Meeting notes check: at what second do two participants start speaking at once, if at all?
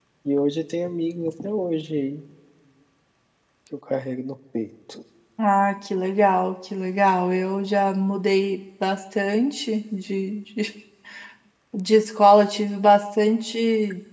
none

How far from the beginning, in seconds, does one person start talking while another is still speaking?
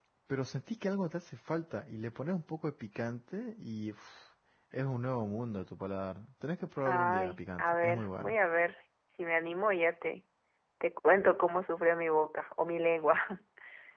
6.8 s

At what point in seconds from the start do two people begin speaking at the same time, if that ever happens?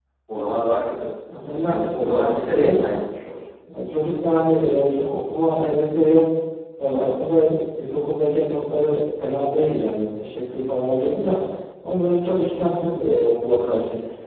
1.6 s

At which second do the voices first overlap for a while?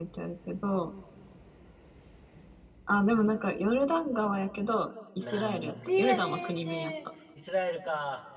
5.2 s

